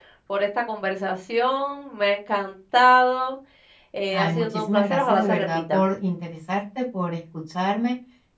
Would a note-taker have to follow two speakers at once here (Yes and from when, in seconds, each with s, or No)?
Yes, from 4.1 s